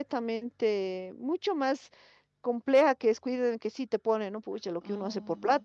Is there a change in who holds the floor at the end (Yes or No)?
No